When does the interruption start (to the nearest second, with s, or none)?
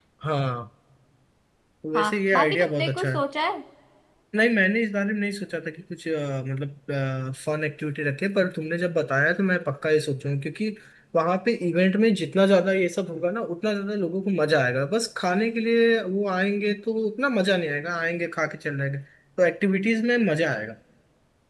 2 s